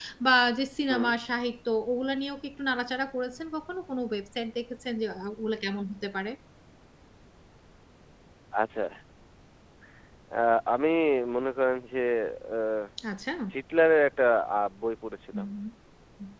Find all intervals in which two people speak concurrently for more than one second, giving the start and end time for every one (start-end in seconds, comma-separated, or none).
none